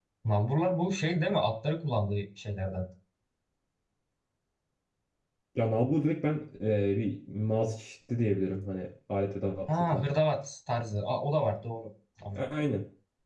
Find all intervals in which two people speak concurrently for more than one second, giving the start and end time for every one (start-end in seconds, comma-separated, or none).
none